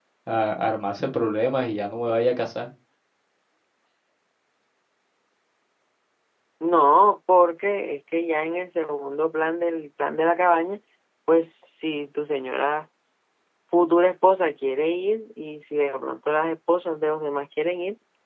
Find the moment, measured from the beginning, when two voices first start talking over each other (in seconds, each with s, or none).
none